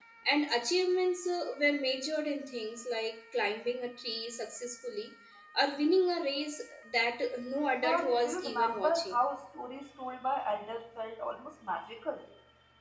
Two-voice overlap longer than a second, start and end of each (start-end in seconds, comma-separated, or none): 7.8-9.2